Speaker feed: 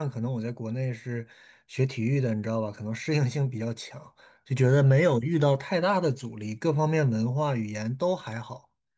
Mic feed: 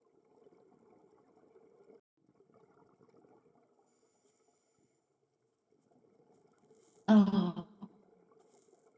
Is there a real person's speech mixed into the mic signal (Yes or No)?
Yes